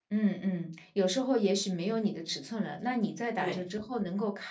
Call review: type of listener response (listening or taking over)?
listening